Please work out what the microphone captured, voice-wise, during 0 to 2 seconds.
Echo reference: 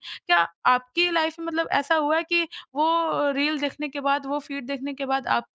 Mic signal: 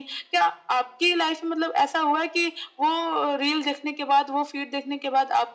echo only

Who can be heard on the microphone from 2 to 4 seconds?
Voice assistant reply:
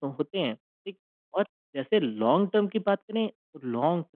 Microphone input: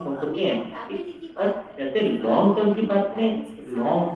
both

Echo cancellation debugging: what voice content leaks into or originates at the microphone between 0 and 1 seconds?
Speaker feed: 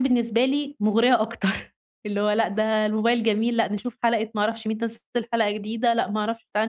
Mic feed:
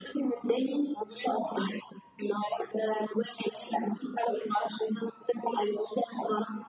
echo only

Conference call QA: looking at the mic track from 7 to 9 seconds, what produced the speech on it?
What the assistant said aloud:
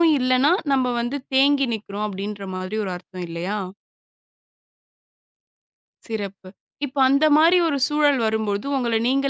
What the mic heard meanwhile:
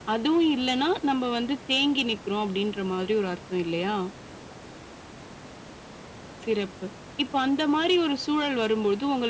echo only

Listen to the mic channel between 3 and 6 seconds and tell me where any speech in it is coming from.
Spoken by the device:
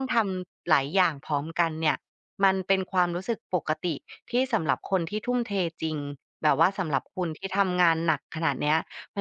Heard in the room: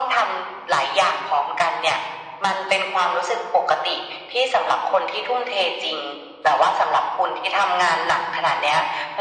echo only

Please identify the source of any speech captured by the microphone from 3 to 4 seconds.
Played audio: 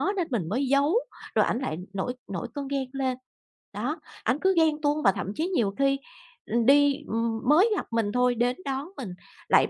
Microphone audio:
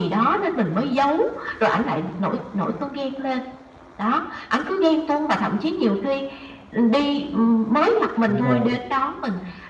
echo only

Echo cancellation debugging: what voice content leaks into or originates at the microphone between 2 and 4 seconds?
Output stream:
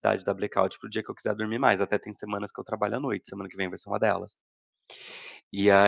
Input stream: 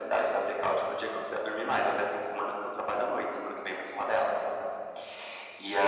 echo only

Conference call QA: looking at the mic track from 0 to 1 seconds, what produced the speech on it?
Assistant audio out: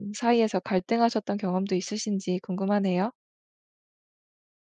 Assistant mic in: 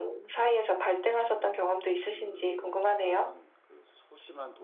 echo only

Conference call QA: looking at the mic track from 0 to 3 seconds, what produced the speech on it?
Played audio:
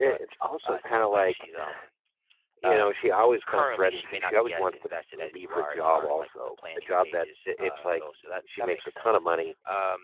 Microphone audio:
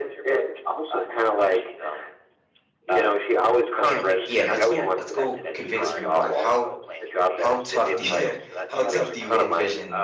echo only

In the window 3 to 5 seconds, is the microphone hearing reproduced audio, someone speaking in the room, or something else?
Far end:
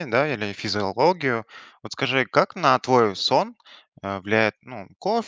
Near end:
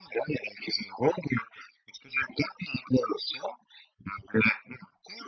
echo only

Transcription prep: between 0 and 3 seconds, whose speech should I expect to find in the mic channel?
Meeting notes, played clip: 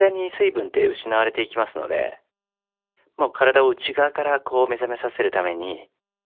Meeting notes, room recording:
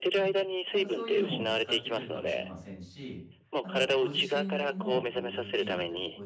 both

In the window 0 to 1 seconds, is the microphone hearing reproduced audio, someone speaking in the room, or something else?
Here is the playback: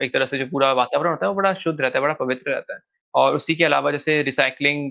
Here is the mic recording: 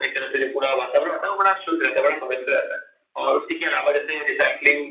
echo only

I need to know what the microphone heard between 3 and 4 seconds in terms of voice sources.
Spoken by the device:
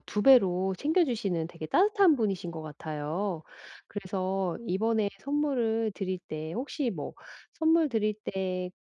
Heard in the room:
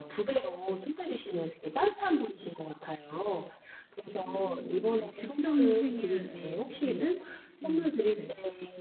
echo only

